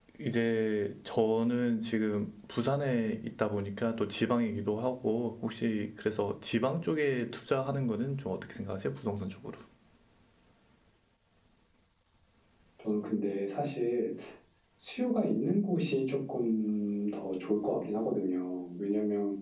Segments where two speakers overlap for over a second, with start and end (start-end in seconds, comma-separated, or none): none